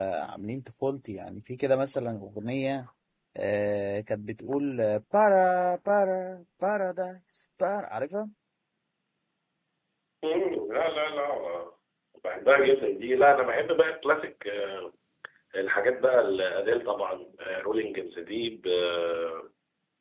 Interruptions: none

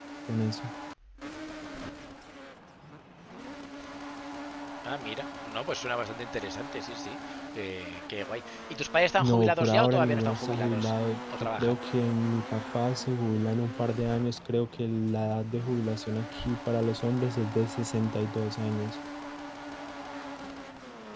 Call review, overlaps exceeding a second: present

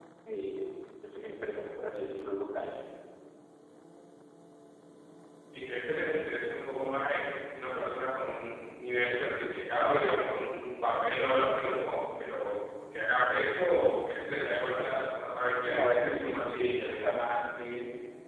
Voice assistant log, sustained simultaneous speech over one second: present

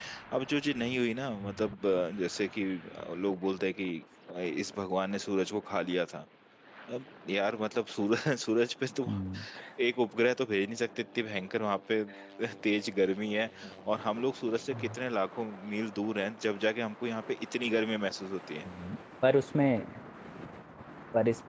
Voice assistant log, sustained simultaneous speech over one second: none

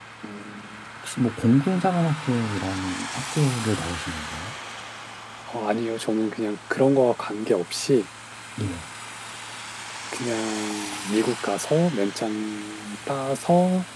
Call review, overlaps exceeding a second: none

